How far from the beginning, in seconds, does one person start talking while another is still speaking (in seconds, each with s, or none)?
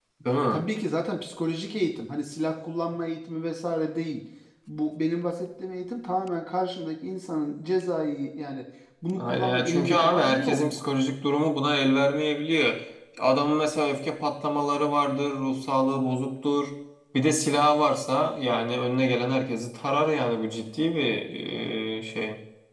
9.2 s